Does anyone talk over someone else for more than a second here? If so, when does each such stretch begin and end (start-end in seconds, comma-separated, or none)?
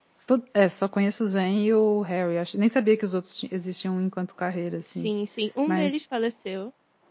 none